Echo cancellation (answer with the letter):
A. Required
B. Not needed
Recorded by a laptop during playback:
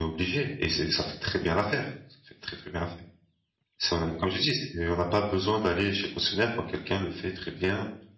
B